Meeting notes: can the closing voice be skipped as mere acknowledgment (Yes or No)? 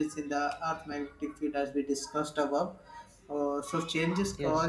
Yes